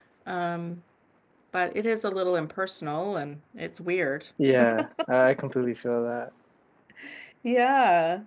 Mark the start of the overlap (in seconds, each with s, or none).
none